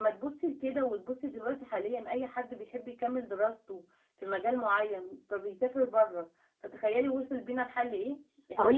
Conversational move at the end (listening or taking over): taking over